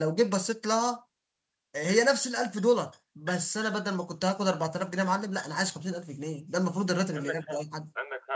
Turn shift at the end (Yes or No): Yes